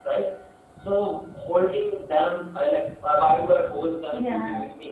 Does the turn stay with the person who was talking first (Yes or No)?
Yes